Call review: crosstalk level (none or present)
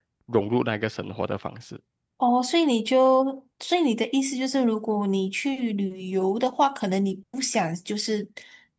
none